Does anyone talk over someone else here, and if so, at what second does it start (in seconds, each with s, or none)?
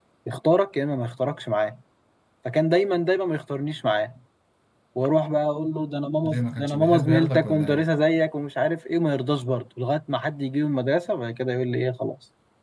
6.2 s